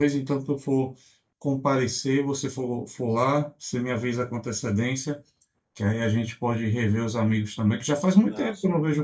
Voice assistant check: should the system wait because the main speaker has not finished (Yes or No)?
Yes